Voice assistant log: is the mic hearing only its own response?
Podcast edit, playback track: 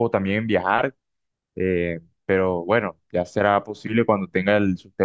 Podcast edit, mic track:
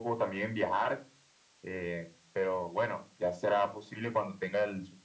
Yes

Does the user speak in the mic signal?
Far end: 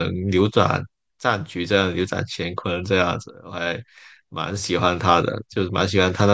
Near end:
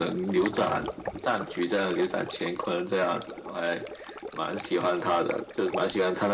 No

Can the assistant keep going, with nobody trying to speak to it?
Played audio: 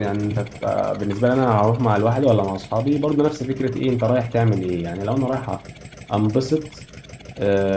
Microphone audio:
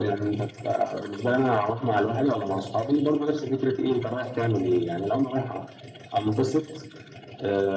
Yes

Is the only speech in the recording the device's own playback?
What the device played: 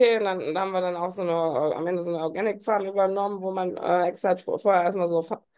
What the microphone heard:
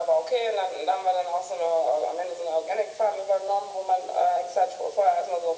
Yes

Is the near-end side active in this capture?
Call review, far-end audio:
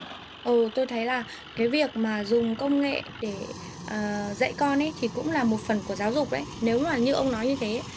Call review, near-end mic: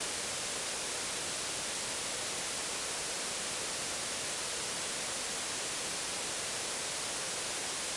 No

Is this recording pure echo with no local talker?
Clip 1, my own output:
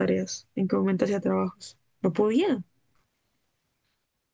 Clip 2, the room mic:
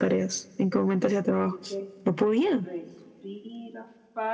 No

